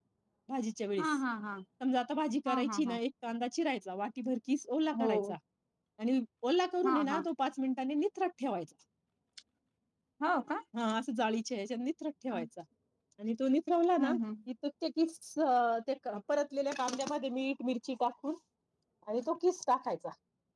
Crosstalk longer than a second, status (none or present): none